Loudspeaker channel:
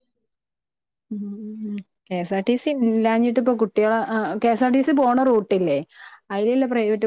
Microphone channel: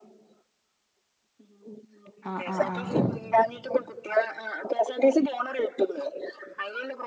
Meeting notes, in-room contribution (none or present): present